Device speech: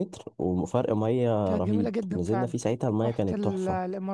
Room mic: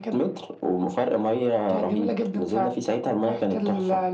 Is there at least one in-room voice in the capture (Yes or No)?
No